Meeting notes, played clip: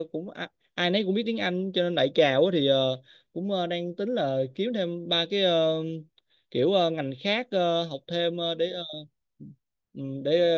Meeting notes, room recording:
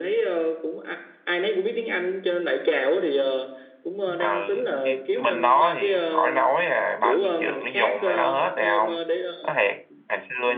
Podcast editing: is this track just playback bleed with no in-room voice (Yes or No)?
No